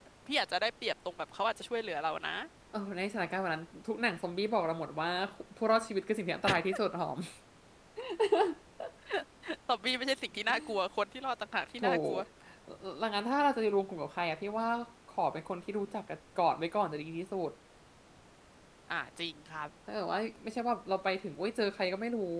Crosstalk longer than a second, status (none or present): none